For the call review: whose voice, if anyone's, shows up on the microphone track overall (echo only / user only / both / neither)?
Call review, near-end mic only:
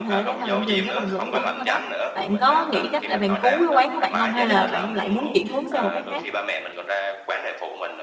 both